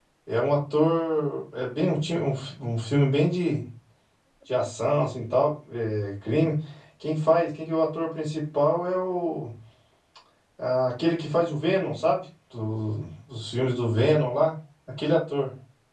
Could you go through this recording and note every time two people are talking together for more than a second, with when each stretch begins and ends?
none

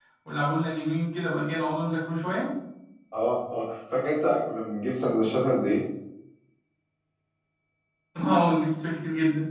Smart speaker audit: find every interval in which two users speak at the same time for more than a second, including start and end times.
none

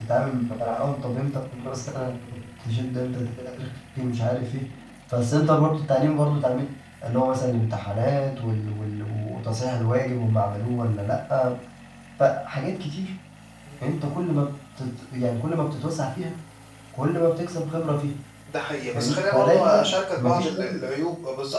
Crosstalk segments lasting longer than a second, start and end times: 18.9-20.8

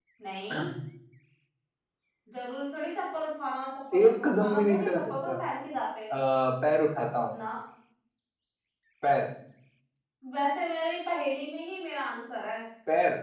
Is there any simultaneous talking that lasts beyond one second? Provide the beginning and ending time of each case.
3.9-5.3

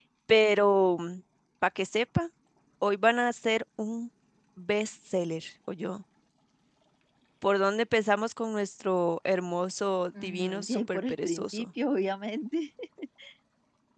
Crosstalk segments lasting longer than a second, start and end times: 10.2-11.7

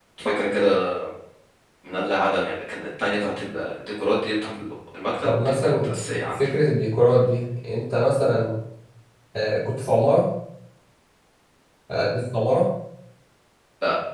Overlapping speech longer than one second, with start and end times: 5.2-6.5

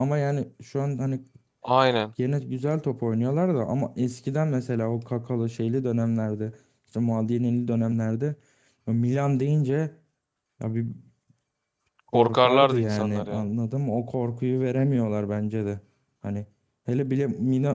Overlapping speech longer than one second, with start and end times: 12.1-13.5

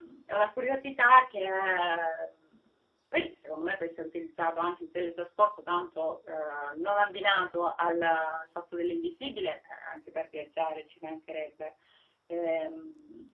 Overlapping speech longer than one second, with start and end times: none

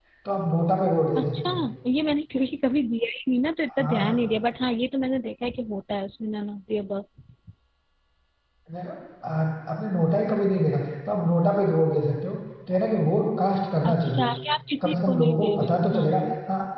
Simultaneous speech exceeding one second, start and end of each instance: 14.8-16.2

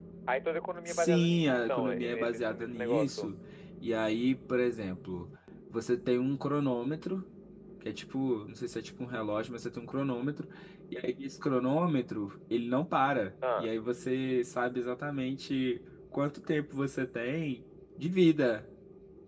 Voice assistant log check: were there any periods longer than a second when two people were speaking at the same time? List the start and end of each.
0.9-3.3

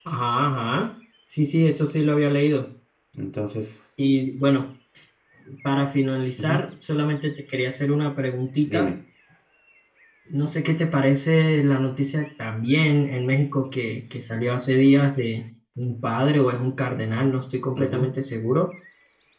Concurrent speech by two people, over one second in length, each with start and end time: none

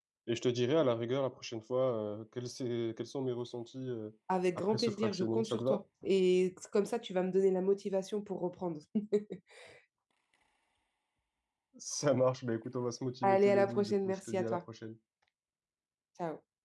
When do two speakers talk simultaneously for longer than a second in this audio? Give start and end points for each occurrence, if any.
4.6-5.8, 13.2-14.6

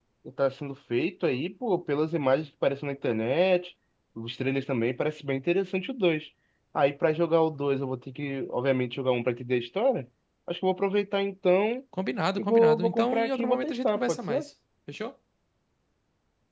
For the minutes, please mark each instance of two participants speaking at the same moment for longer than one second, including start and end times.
12.4-14.4

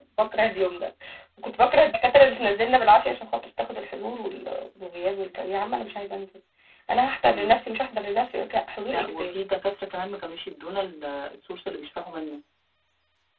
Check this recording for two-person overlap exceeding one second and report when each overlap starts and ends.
none

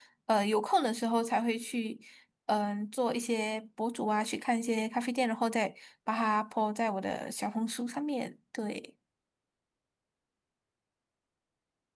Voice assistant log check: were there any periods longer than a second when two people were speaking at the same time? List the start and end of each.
none

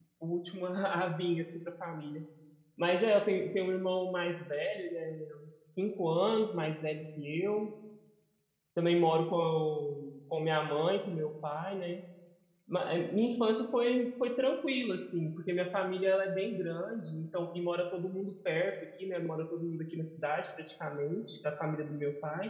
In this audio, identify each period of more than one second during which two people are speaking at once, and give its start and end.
none

